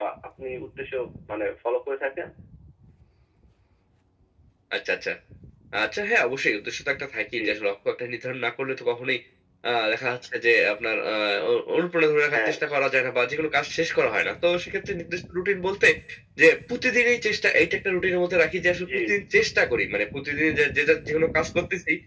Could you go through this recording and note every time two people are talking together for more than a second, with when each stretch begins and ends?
none

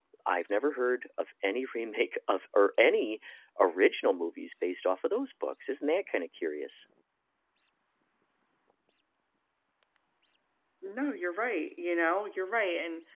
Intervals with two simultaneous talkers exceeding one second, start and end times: none

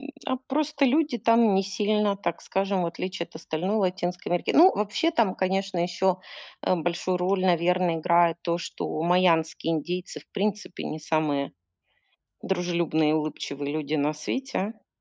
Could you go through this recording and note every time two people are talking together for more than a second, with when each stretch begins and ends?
none

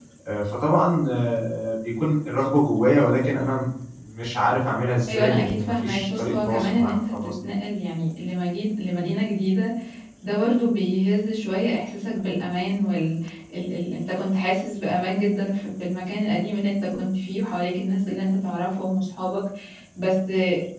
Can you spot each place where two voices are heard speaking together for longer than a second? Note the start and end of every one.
5.1-7.3

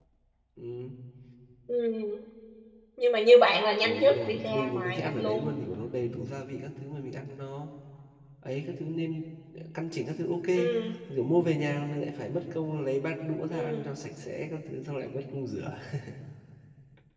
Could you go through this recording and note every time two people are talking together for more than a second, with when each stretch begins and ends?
3.8-5.6

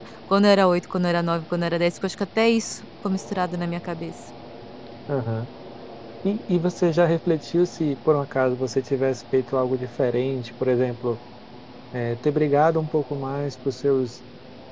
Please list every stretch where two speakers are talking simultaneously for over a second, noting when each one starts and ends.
none

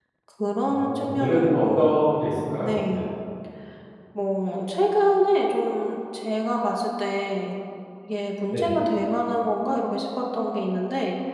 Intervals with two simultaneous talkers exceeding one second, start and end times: 0.7-1.9

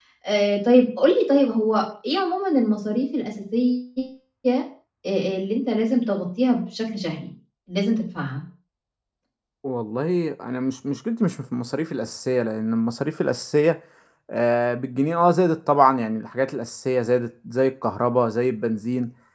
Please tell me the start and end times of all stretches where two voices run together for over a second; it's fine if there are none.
none

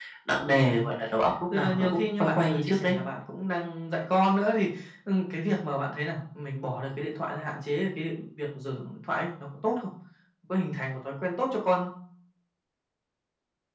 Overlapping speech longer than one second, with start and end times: 1.5-2.9

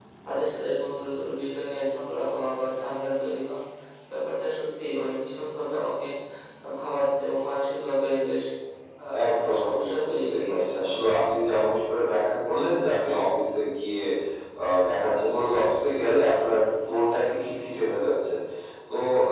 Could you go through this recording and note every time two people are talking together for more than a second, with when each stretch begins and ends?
9.2-11.0

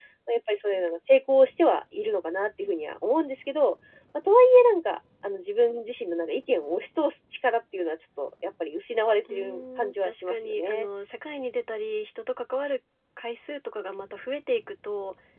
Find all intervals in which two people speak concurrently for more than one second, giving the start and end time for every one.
9.3-10.9

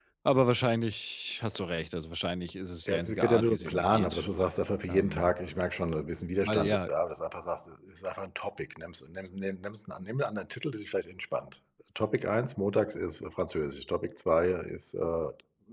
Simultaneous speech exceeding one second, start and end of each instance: 2.9-4.2

